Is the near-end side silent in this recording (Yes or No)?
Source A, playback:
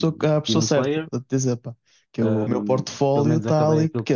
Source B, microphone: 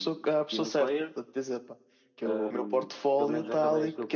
No